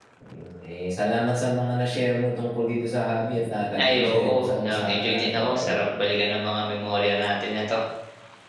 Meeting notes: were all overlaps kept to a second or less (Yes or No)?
No